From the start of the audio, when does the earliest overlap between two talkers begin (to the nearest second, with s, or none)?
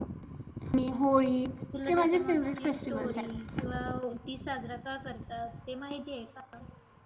2 s